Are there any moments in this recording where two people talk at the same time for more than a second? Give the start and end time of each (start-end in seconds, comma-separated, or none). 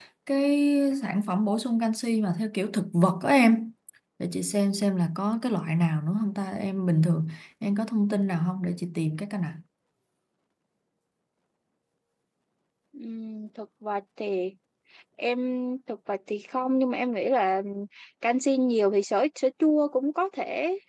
none